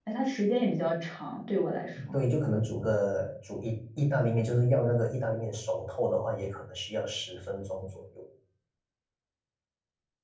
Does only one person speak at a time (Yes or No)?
Yes